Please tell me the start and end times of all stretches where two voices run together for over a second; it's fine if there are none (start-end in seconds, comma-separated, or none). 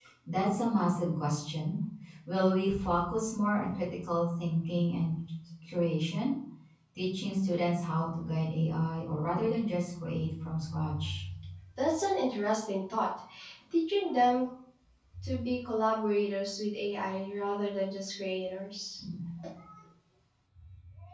none